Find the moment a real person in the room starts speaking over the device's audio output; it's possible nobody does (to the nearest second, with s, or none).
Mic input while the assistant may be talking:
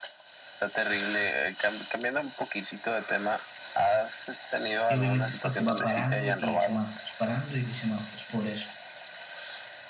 5 s